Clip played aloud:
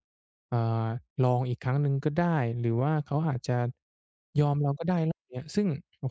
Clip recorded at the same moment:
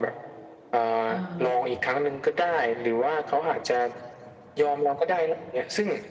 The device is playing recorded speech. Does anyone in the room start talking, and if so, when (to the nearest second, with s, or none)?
1 s